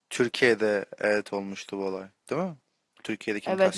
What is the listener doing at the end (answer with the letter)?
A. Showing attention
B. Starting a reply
B